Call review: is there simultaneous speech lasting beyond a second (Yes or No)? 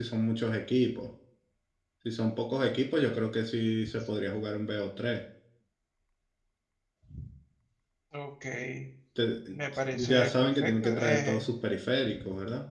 Yes